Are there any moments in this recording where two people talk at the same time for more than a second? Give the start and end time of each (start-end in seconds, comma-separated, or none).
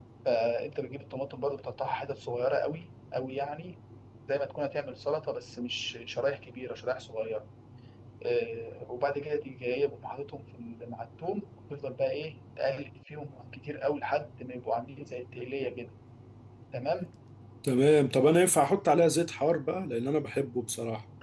none